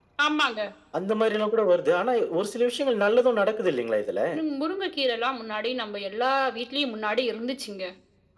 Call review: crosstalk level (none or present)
none